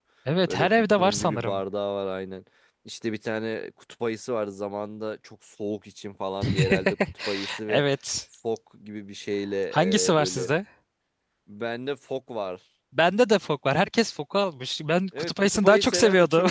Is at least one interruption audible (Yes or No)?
Yes